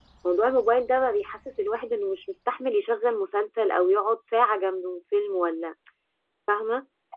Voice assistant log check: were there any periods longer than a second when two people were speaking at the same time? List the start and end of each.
none

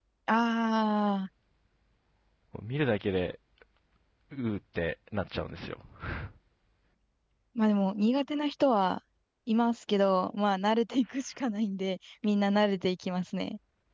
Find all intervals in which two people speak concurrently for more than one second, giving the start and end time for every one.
none

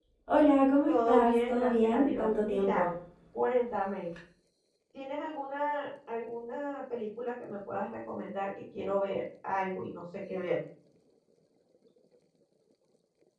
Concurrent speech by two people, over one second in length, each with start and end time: 0.9-2.9

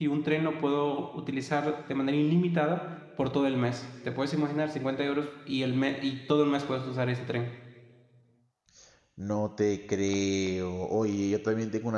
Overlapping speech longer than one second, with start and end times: none

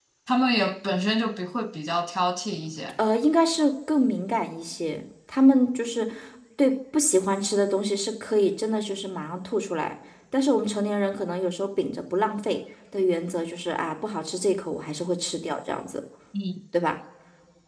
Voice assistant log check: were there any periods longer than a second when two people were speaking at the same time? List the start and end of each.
none

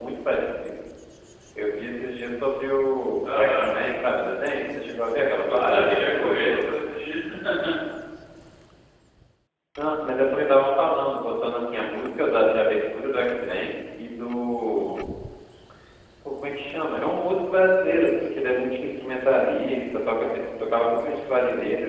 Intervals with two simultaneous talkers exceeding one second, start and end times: 5.5-6.7

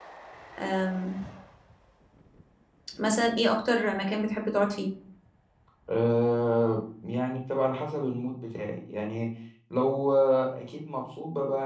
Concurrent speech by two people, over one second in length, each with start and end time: none

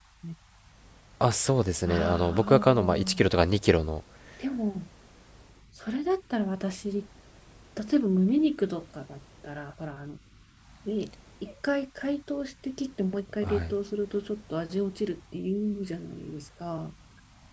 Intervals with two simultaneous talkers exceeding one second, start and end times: 1.9-3.3

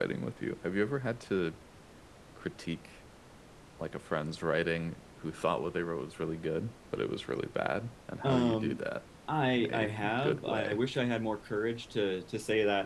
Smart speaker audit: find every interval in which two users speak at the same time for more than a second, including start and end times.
9.6-10.8

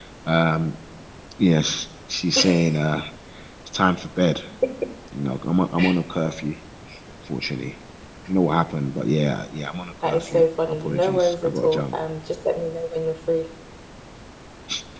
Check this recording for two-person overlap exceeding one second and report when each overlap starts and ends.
10.1-11.9

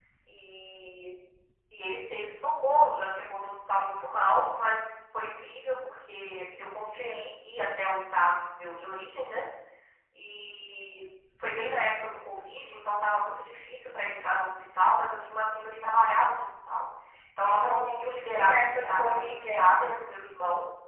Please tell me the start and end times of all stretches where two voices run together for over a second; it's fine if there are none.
17.4-19.8

